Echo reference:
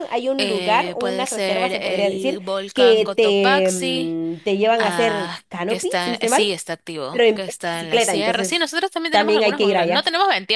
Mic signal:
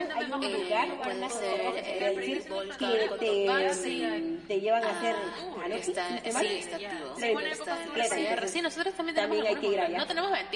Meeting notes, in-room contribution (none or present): present